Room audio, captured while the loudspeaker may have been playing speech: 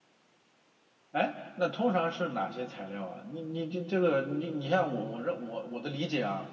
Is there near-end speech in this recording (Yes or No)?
Yes